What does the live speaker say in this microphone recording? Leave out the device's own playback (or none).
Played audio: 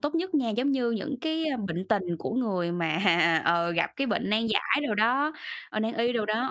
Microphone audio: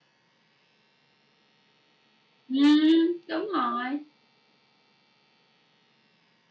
Ừm, đúng rồi!